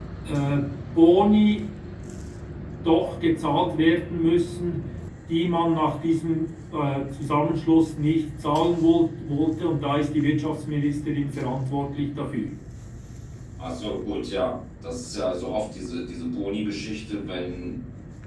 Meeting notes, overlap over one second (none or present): none